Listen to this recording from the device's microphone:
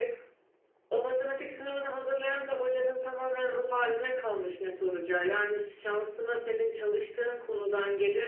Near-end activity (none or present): none